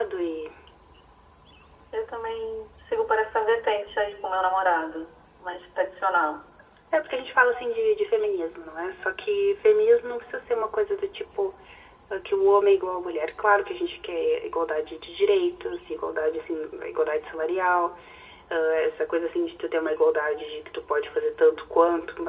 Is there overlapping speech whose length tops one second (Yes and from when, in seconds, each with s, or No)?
No